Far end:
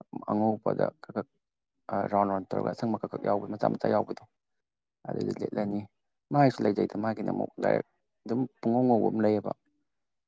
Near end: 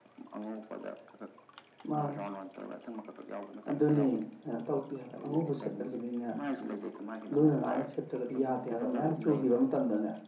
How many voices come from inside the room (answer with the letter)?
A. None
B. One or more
B